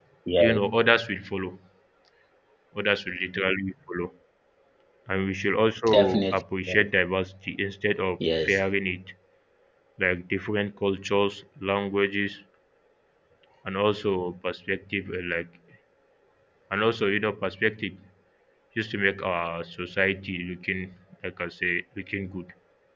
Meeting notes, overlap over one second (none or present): none